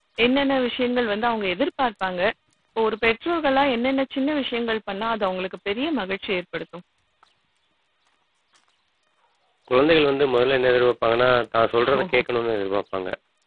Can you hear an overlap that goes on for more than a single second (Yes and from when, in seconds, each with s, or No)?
No